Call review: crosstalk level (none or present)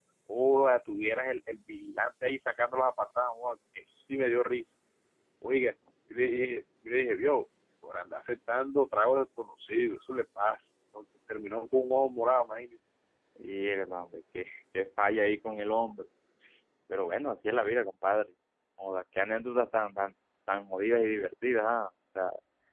none